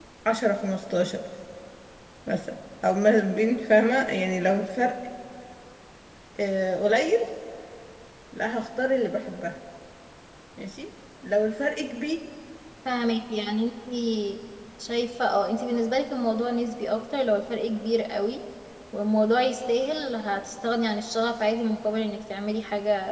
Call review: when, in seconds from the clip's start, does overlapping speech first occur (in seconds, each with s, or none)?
none